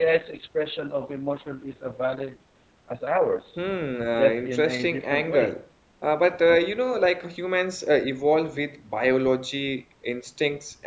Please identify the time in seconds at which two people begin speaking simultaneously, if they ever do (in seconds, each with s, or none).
4.2 s